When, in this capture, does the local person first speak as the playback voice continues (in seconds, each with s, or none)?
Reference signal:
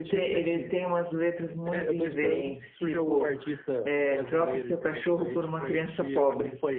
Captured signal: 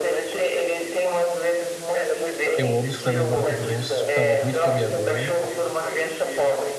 2.5 s